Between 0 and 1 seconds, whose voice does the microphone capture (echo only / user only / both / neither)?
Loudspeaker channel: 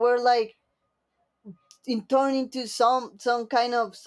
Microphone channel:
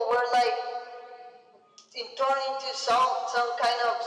echo only